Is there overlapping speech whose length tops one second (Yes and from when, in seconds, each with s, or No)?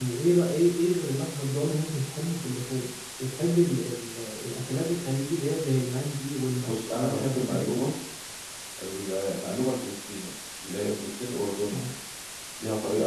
Yes, from 6.6 s